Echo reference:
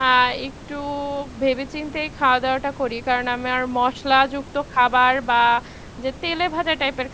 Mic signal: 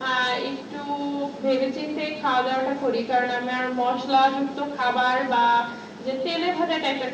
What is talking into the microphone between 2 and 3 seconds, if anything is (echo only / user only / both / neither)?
echo only